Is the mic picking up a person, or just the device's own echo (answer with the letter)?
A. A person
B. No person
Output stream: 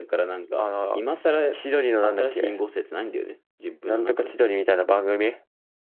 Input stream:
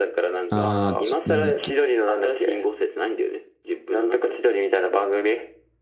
A